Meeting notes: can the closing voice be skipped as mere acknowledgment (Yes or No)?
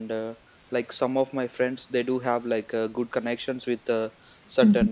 Yes